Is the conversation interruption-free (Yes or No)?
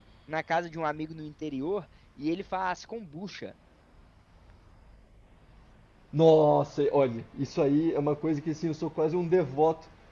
Yes